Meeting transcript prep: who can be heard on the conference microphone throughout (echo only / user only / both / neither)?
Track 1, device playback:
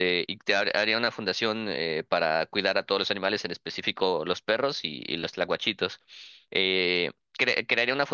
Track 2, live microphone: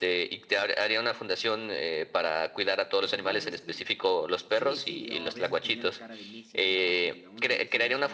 both